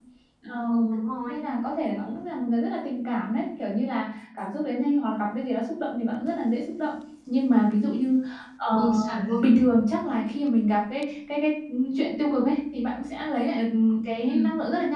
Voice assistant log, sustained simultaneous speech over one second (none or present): none